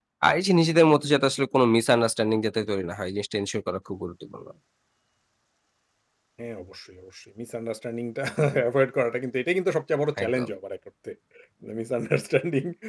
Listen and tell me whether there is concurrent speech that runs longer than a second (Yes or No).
No